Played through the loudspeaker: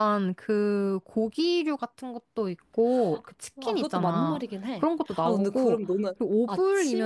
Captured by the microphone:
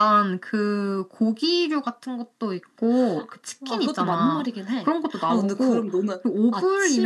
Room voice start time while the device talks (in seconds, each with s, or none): none